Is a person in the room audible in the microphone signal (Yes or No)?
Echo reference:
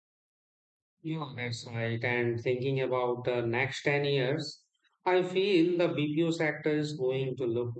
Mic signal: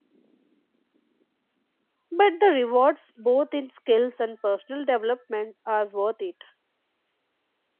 Yes